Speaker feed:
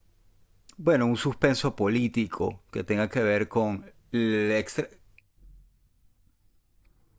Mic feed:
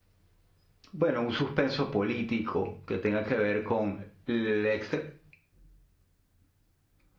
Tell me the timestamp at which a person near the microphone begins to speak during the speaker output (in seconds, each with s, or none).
none